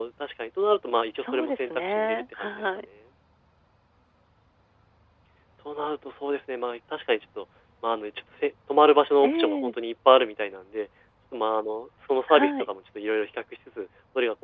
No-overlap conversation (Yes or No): No